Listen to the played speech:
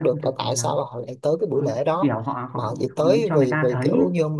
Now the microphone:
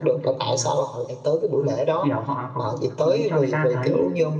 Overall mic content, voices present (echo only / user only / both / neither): echo only